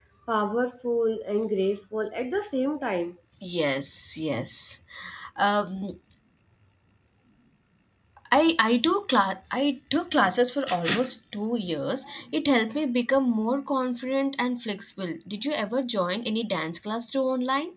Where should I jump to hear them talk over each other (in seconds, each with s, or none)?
none